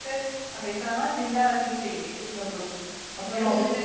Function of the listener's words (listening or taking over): listening